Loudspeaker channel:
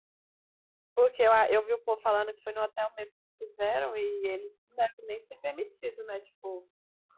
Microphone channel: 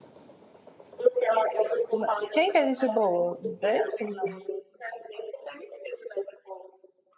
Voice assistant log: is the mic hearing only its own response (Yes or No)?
No